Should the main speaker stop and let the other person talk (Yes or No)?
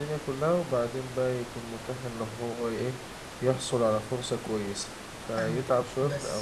Yes